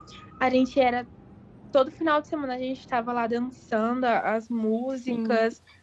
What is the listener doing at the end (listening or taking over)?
taking over